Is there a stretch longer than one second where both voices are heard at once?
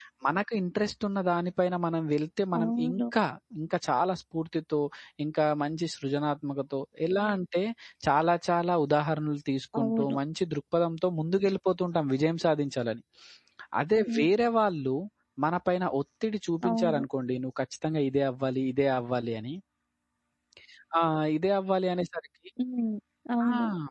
No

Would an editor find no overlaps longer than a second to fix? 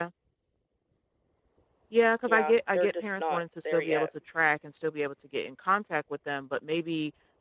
No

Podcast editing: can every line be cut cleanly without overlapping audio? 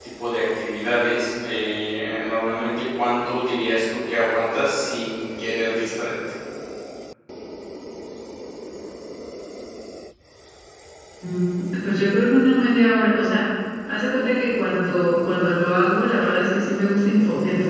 Yes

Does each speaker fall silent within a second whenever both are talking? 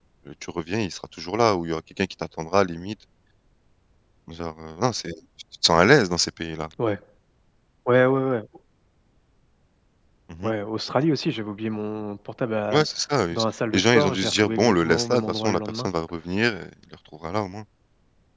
No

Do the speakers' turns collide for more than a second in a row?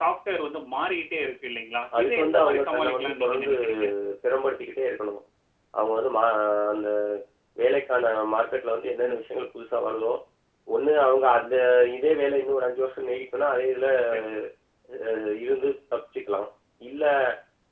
Yes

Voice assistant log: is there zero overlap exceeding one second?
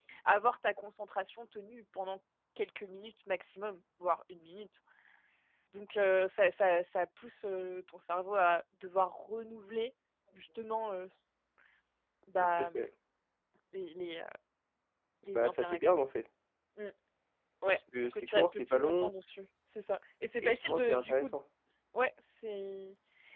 No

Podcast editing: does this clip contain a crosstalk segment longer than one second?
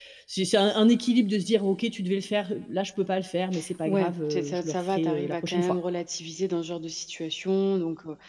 Yes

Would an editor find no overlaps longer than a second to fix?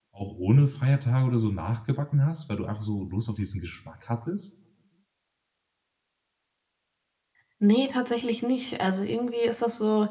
Yes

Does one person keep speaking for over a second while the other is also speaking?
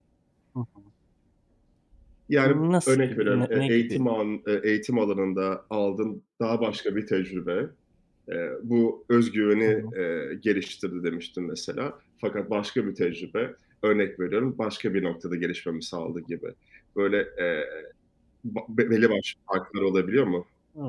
Yes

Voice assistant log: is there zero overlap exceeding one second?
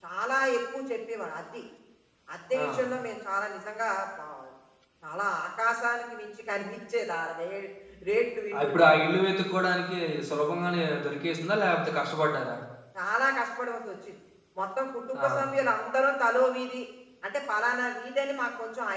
Yes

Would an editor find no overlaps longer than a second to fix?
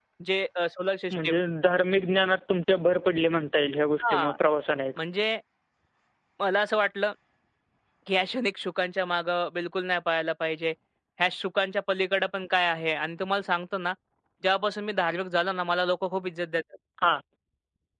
Yes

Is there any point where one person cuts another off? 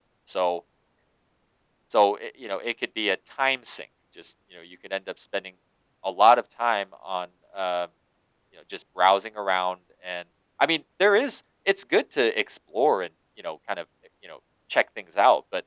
No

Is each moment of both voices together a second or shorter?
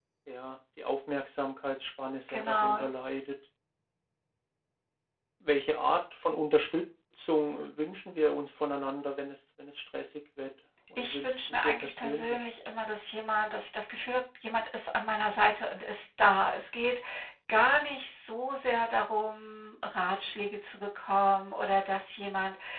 No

